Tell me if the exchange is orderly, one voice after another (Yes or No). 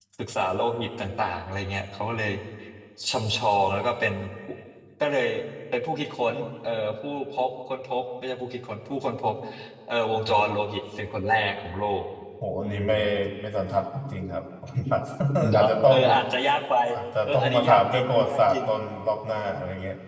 No